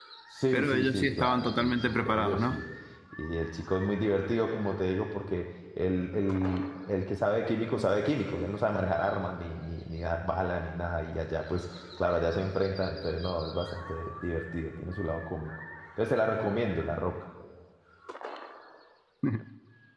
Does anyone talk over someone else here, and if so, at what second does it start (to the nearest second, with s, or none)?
1 s